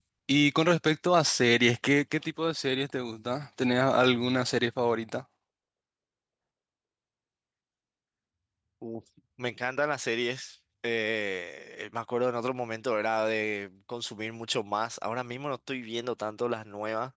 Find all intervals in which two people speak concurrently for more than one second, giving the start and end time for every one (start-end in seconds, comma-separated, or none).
none